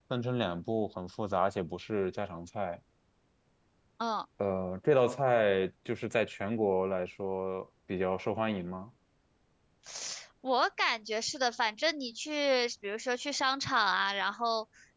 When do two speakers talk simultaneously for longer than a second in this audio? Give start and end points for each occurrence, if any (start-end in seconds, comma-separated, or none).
none